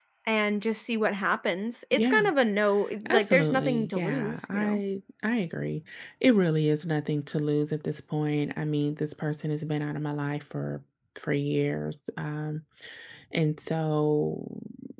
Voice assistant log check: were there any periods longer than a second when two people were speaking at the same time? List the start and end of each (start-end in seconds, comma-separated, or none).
3.1-4.8